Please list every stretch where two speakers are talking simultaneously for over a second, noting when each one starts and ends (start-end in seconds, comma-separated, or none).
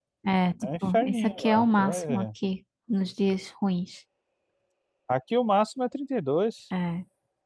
0.6-2.3